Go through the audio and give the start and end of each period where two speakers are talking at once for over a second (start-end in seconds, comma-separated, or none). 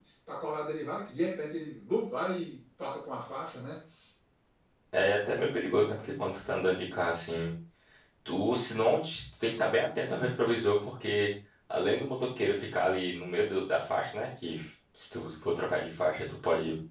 none